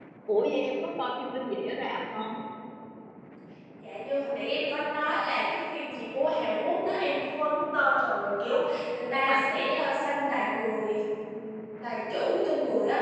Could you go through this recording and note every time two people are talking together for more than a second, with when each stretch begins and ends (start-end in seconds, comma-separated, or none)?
none